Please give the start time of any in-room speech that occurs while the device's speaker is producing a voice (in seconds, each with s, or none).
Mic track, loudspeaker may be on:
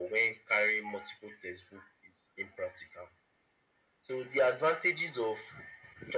none